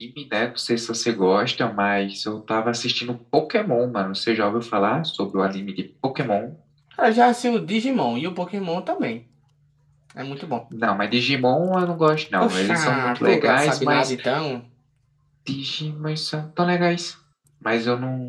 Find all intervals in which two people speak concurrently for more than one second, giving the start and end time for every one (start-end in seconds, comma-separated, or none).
12.4-14.1